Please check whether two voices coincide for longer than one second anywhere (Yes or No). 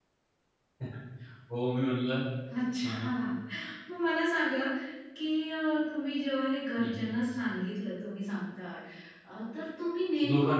No